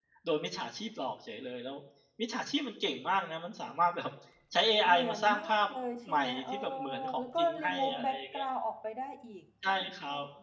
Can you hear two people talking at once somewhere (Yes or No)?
Yes